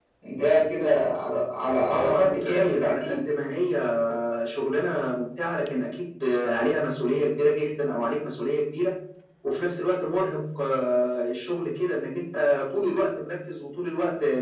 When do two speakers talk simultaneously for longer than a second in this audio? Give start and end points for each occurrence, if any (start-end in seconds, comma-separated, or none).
1.9-3.2